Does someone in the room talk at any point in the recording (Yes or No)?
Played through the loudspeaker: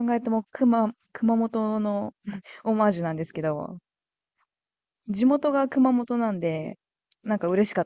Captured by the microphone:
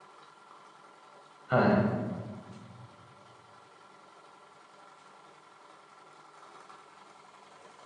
Yes